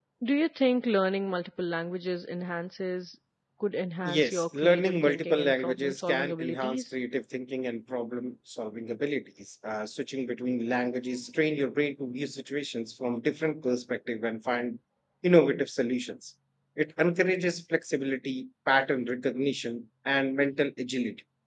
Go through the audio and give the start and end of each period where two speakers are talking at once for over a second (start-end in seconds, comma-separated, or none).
4.0-6.8